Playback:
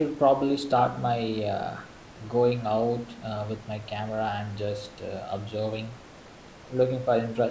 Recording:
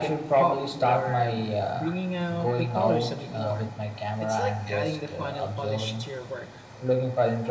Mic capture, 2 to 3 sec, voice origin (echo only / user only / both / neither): both